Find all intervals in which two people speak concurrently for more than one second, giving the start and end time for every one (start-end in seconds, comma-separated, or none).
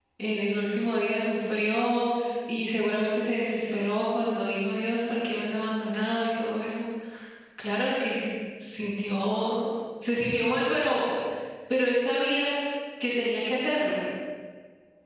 none